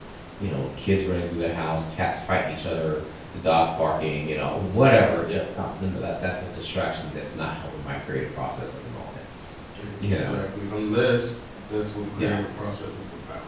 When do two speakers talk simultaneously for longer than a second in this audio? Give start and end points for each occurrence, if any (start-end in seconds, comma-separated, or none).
none